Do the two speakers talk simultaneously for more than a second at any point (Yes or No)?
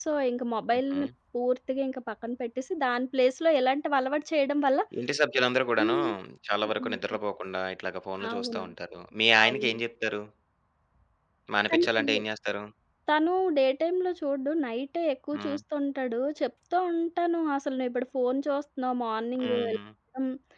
No